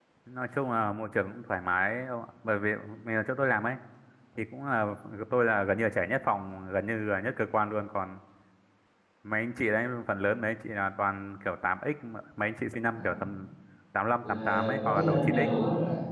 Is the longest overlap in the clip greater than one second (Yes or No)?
Yes